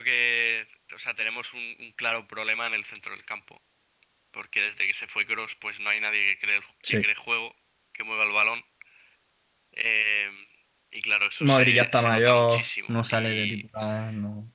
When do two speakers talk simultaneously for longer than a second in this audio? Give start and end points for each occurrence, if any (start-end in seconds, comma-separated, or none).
11.4-13.6